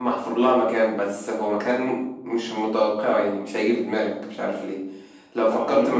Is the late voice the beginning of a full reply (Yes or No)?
No